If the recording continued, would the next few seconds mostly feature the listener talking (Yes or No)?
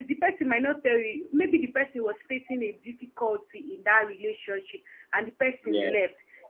No